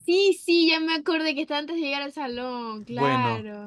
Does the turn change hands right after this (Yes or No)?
Yes